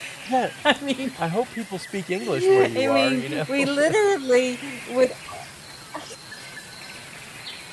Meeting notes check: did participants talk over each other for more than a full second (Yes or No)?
Yes